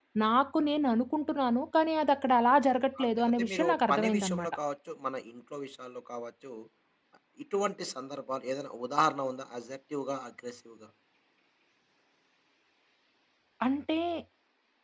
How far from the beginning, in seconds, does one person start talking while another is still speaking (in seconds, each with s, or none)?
3.0 s